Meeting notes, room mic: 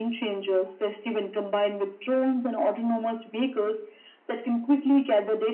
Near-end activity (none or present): none